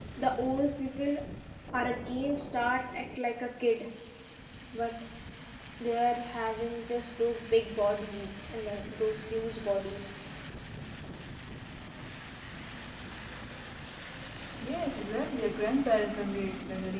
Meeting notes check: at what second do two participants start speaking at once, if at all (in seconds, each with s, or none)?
none